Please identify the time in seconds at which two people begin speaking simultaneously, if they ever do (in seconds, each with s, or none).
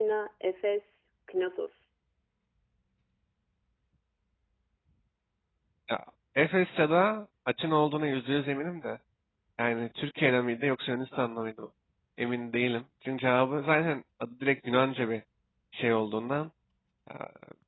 none